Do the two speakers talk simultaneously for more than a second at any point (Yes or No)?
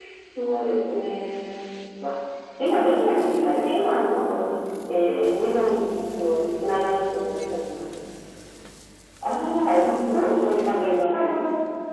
No